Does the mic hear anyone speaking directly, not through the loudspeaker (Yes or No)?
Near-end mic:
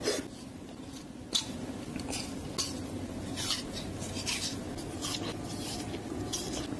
No